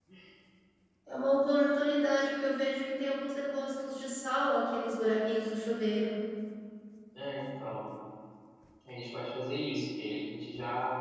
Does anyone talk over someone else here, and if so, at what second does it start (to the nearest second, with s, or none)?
none